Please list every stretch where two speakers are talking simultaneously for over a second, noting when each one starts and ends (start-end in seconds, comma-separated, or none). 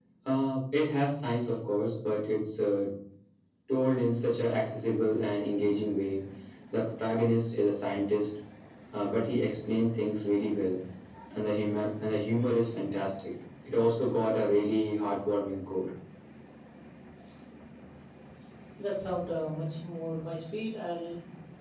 none